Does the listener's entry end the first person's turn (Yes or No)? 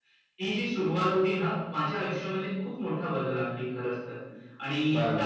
Yes